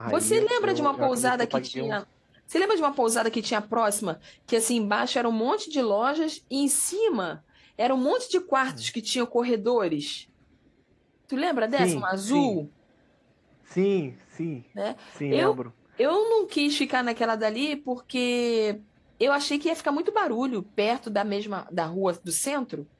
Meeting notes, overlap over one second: present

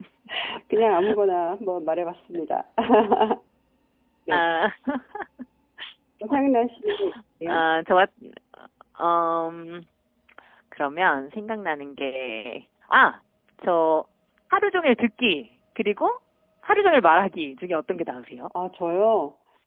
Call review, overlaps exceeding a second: none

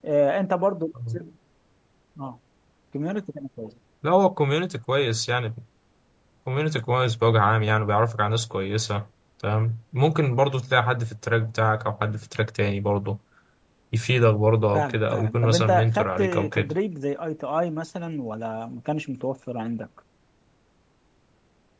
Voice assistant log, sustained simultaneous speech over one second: present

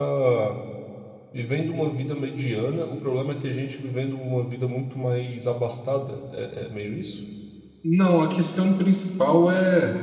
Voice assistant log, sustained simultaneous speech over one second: none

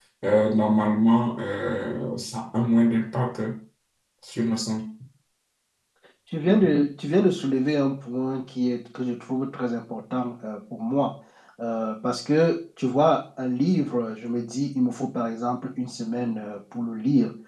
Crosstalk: none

